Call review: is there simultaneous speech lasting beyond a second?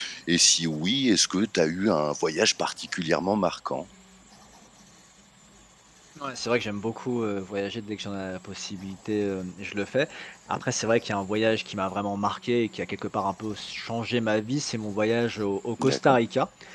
No

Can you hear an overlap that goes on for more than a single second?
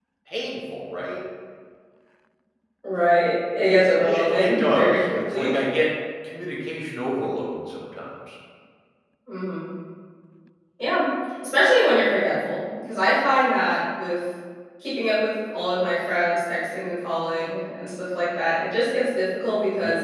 Yes, from 3.9 s

